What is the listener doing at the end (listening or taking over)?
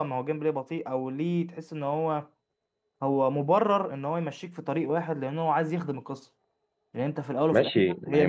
taking over